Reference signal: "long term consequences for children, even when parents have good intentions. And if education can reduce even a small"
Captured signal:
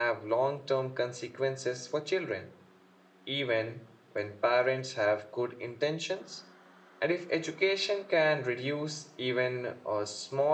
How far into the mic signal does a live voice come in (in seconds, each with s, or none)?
none